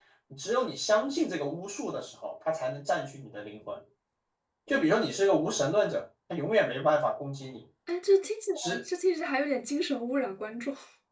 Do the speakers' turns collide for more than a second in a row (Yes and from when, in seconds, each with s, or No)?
No